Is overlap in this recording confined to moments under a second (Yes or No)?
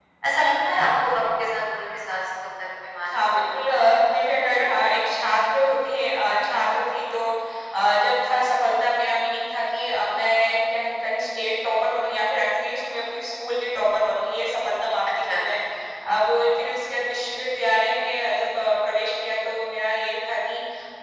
No